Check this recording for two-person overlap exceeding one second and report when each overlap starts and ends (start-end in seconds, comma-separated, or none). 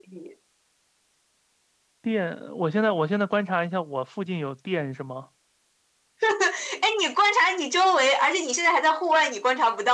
none